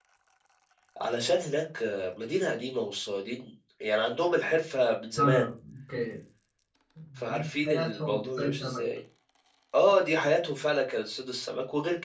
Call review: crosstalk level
present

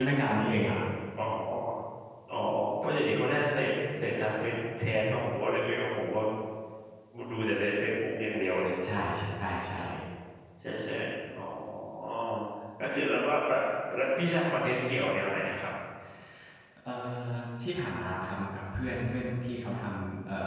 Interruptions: none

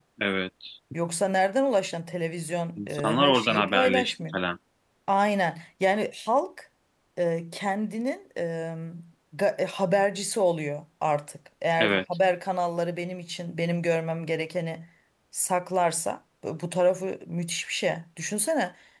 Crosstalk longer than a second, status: present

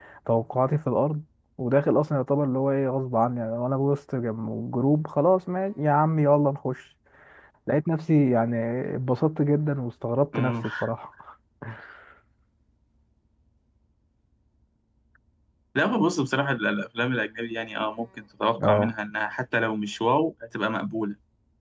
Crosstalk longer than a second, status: none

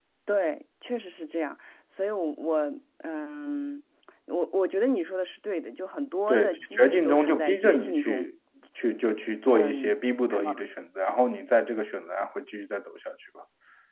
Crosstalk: present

